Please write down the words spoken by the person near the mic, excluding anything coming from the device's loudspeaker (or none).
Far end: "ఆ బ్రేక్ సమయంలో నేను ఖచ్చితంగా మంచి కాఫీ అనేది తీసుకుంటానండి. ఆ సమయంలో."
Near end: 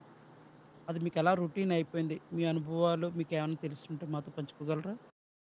అది మీకెలా రొటీన్ అయిపోయింది? మీ అనుభవాలు మీకేమన్నా తెలిసుంటే మాతో పంచుకోగలరా?